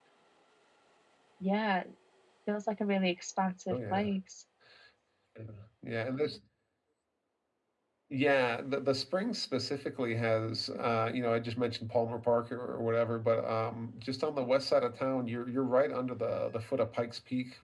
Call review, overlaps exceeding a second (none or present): none